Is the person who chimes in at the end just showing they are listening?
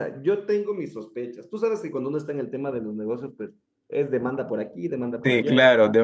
No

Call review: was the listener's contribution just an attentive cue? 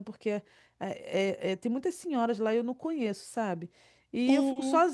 Yes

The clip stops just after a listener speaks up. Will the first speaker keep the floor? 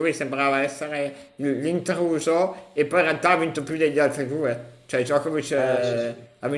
Yes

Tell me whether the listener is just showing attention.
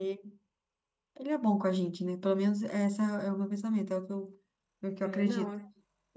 No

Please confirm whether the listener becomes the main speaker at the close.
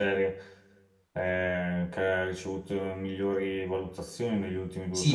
Yes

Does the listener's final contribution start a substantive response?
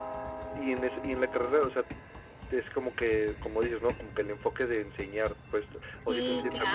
Yes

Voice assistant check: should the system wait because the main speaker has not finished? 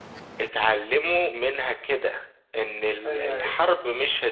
Yes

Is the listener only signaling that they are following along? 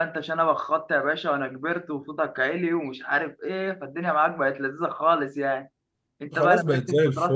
No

